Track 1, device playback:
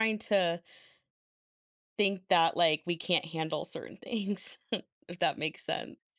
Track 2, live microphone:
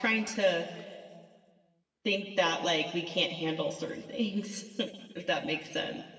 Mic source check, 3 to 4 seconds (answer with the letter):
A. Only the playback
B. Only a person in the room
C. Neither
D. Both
A